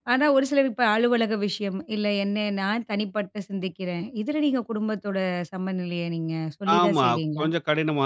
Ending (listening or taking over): taking over